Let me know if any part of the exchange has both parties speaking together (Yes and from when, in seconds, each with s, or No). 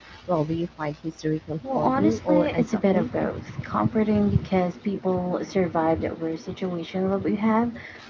Yes, from 1.6 s